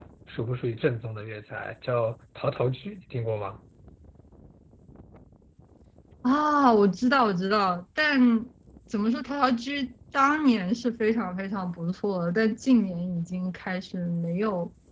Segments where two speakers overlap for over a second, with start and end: none

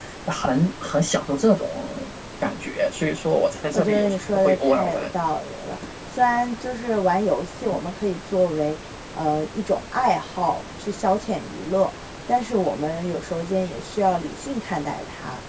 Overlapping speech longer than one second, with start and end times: 3.7-5.1

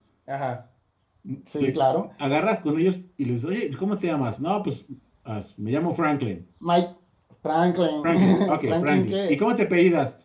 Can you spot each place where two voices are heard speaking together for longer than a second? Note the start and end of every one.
8.0-9.4

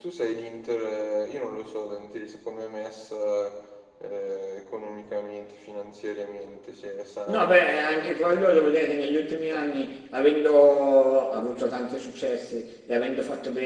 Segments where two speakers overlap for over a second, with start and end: 7.3-8.7

